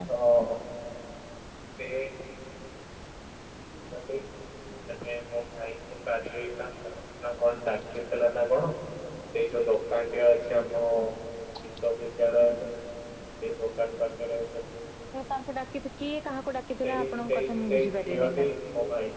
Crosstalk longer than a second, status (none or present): present